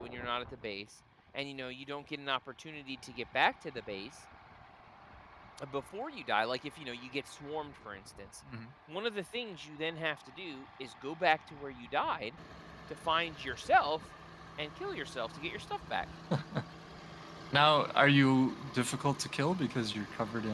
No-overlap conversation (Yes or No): Yes